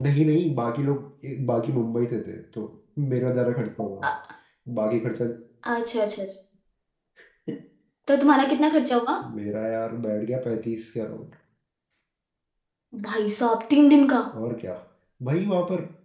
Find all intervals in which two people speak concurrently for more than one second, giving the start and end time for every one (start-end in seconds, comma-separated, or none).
none